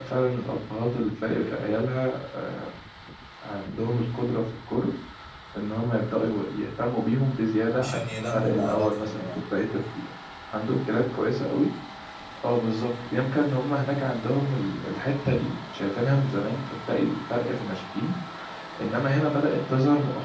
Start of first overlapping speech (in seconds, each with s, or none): 7.7 s